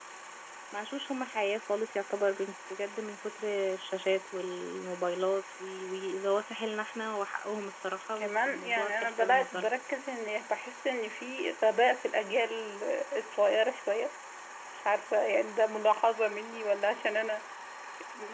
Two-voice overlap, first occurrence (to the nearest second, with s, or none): 8 s